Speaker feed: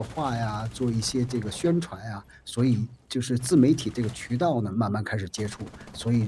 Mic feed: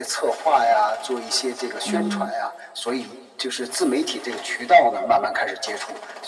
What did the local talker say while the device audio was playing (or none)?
嗯，